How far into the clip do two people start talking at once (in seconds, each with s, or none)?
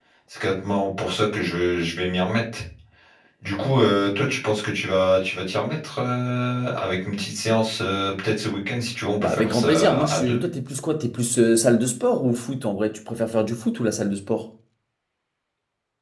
9.2 s